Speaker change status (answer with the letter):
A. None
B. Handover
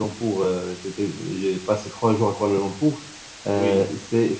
A